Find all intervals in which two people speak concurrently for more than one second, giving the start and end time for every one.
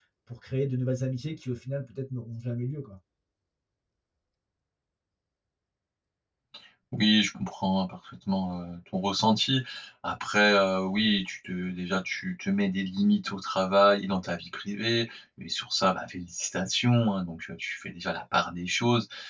none

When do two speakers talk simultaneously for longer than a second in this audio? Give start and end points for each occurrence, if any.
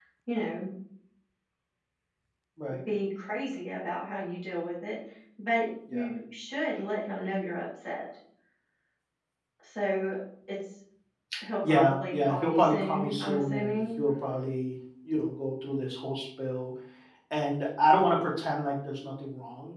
11.7-13.8

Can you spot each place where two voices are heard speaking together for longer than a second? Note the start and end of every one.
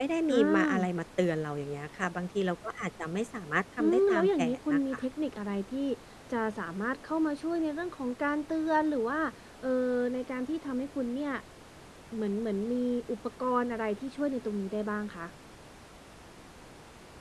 3.8-5.0

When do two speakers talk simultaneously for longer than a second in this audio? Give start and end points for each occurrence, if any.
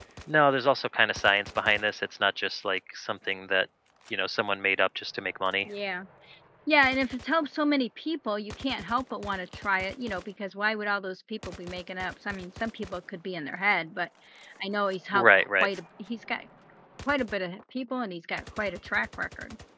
none

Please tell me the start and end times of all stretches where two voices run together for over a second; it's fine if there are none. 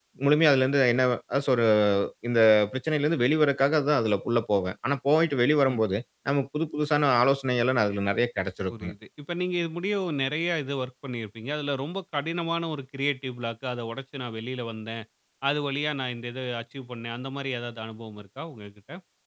none

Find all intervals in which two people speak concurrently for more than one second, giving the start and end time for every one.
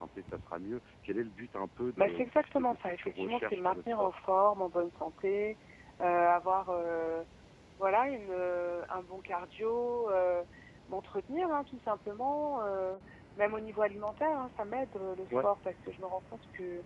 2.0-4.1

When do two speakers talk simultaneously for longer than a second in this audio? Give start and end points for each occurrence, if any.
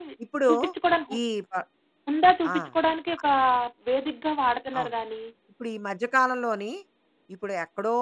none

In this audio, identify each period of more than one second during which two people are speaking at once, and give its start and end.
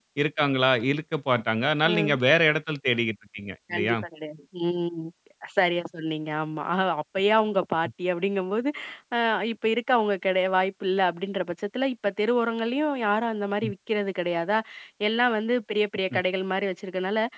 none

